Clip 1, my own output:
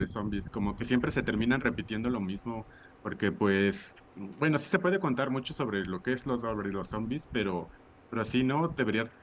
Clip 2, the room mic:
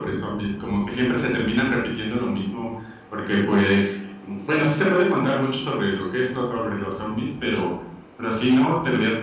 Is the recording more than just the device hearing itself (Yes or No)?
No